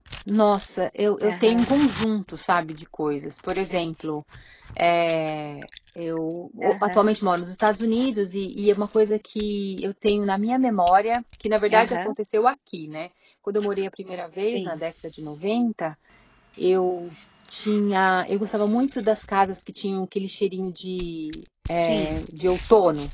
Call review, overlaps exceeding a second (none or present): none